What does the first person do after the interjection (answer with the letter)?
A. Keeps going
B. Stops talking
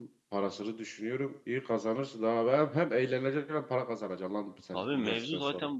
B